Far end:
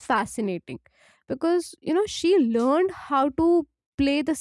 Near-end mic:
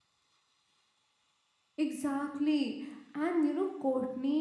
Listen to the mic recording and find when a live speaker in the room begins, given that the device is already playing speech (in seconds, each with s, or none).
1.8 s